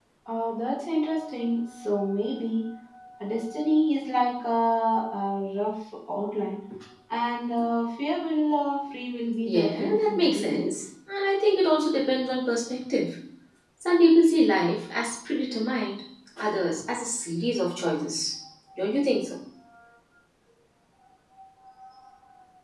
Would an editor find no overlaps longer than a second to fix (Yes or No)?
No